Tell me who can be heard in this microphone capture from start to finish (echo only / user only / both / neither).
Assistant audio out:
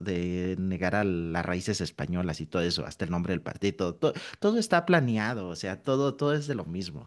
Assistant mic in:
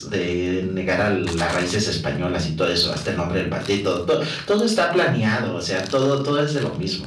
echo only